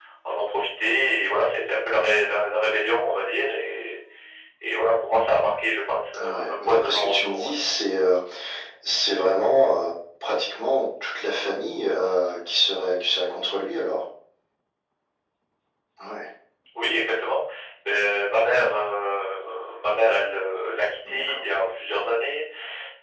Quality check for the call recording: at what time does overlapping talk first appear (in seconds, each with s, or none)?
6.2 s